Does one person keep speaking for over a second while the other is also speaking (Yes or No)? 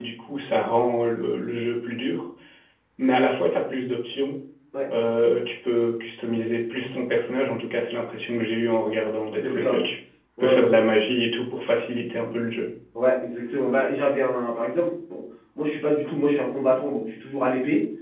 No